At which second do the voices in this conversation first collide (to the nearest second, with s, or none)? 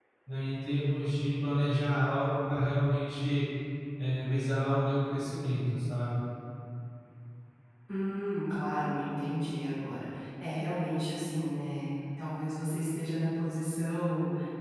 none